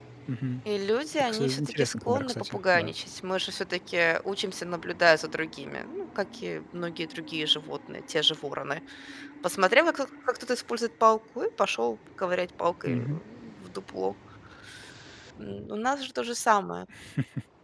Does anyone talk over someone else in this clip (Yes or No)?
Yes